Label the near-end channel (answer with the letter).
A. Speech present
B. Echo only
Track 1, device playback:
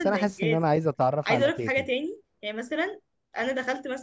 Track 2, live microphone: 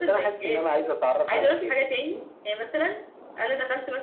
B